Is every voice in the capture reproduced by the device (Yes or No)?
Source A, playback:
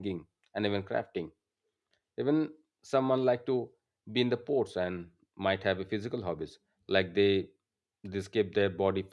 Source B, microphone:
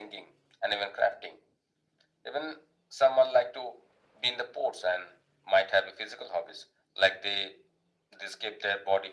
Yes